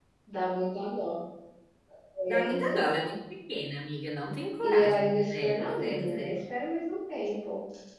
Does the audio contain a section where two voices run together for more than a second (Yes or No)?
Yes